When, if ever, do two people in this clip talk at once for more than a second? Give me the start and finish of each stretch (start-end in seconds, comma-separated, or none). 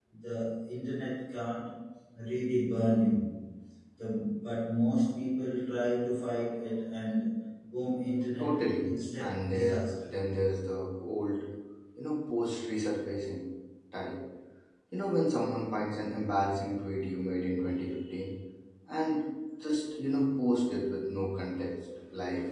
8.4-10.1